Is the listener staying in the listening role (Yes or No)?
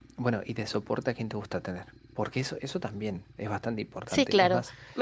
No